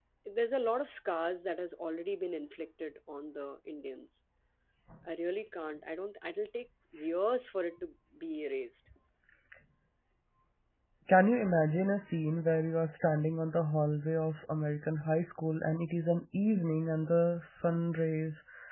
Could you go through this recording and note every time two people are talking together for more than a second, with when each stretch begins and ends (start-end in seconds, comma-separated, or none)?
none